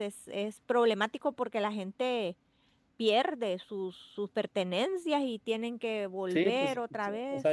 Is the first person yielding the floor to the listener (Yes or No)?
Yes